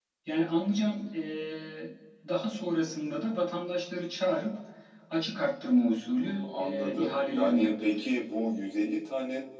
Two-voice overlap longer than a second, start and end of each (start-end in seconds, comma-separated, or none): 6.2-8.1